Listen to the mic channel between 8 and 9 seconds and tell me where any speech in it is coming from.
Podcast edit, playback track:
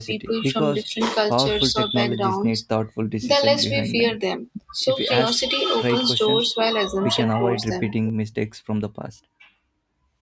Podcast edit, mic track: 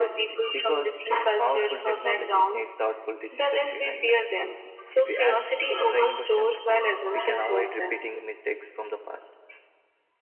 echo only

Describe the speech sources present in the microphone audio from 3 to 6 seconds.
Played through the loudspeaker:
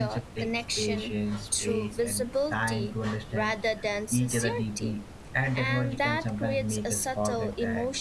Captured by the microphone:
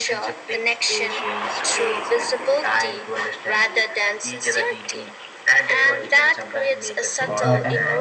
echo only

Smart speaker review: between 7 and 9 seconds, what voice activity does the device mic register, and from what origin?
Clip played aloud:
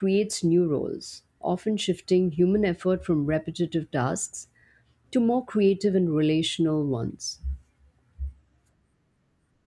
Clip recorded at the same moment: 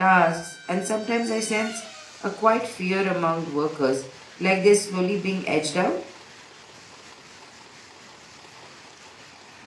neither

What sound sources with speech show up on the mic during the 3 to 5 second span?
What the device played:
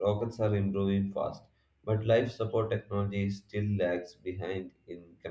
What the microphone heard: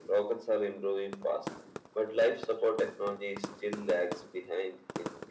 echo only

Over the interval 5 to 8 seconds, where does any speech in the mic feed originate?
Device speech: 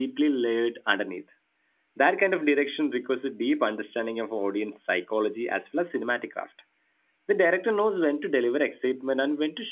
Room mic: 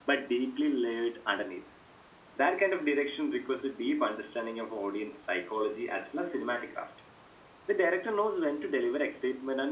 echo only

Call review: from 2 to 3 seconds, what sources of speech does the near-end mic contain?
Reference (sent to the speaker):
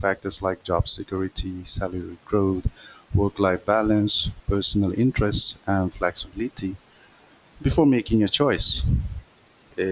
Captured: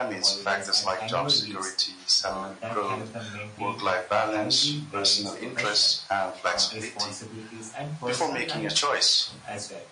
both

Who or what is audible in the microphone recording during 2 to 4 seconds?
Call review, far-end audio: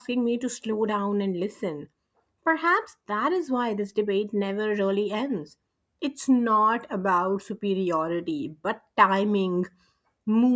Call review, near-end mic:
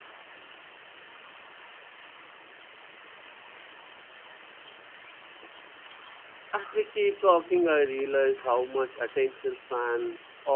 neither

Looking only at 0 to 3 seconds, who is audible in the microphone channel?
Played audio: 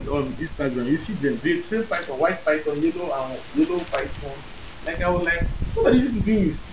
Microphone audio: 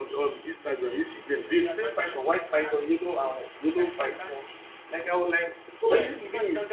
both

